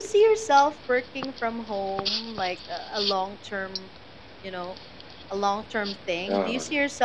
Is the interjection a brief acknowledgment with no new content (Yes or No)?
Yes